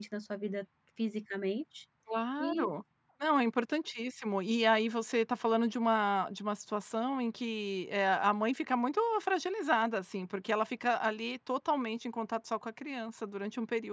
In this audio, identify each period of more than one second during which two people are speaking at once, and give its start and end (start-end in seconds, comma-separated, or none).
none